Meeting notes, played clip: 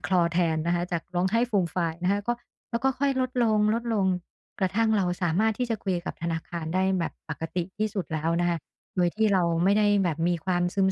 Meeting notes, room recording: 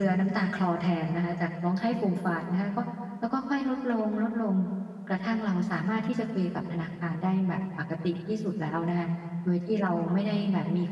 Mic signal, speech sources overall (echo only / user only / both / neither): echo only